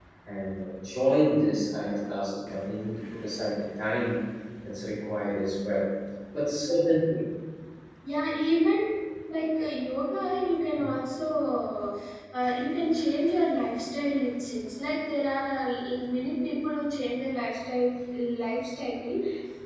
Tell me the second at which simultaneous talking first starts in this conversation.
none

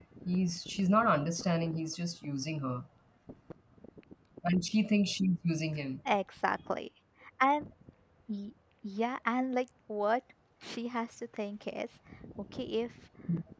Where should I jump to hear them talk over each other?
none

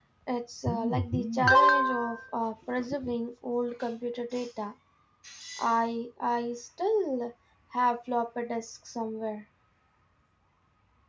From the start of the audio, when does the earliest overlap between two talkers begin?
none

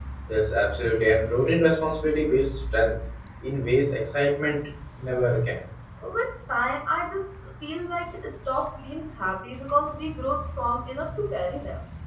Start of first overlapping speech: none

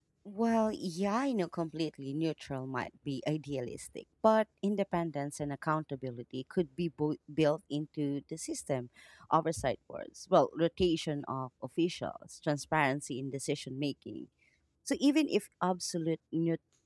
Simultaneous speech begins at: none

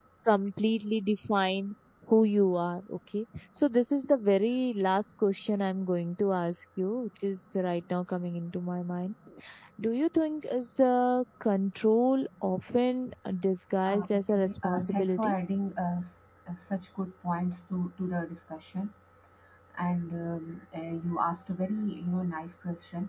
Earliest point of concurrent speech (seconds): 13.9 s

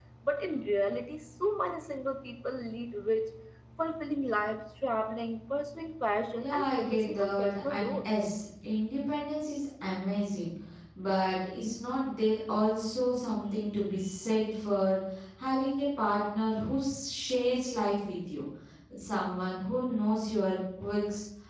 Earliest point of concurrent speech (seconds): 6.4 s

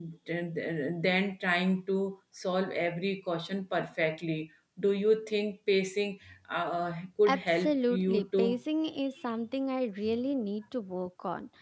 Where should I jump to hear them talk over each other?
7.3 s

